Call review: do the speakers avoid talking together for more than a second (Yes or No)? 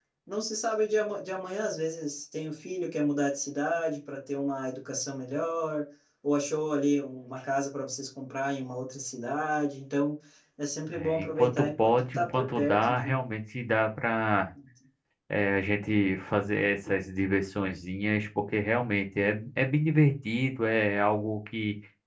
No